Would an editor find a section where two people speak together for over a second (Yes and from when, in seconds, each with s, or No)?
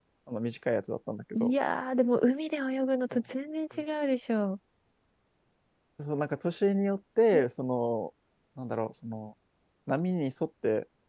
No